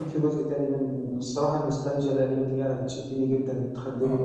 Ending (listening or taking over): taking over